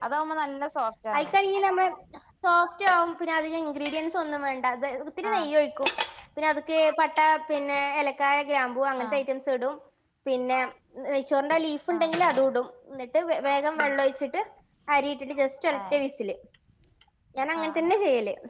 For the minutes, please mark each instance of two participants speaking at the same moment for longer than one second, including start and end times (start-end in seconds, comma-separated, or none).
none